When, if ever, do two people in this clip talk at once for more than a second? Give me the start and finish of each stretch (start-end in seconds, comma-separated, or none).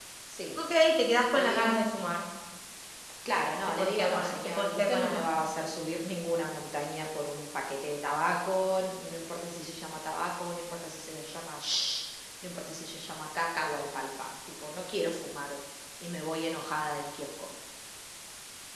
3.7-5.2